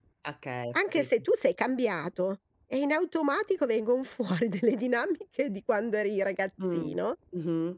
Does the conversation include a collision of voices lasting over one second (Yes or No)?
No